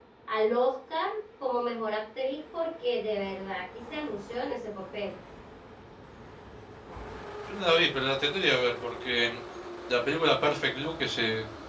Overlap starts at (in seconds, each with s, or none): none